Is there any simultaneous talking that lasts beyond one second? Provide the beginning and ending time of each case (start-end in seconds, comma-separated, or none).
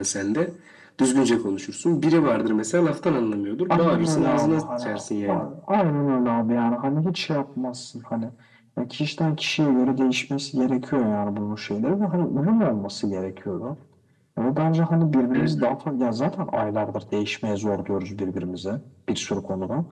3.7-5.0